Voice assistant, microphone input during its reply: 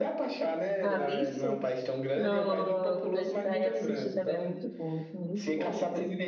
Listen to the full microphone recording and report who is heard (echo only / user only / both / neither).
both